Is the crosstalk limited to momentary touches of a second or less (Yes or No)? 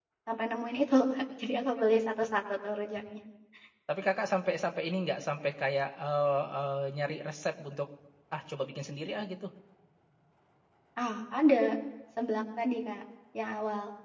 Yes